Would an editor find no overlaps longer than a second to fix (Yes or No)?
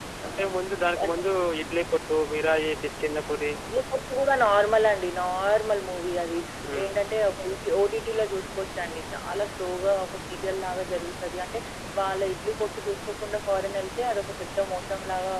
Yes